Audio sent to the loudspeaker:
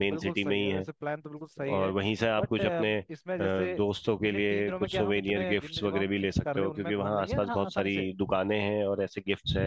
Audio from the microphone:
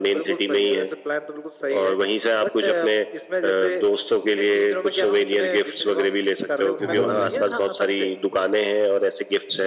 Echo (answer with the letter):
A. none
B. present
B